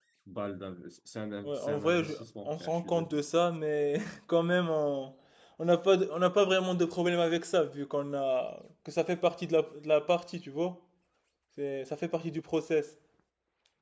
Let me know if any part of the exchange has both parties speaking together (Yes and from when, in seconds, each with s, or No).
Yes, from 1.4 s